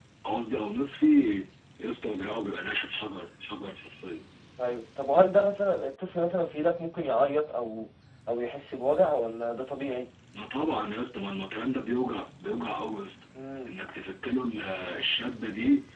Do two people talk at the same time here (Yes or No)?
No